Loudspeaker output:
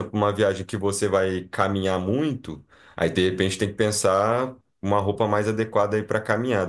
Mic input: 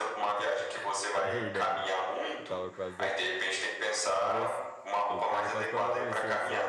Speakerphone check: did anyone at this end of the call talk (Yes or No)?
Yes